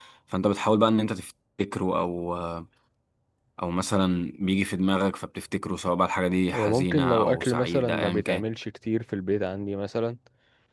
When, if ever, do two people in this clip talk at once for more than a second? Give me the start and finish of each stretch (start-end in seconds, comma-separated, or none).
6.5-8.4